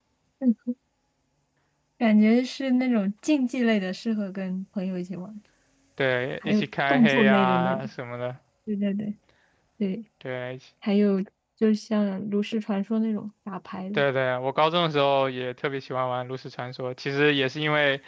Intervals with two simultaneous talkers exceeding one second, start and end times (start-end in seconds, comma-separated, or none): 6.4-7.8